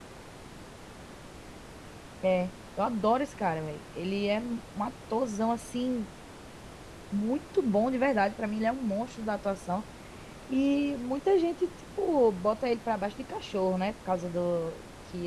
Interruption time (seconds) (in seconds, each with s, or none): none